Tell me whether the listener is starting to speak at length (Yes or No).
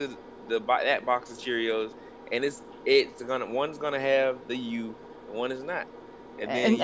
Yes